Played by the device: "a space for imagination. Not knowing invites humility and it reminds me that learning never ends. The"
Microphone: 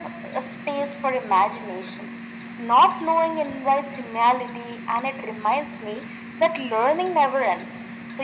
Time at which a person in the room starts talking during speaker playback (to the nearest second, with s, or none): none